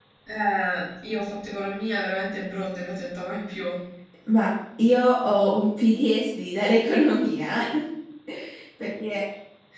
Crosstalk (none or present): none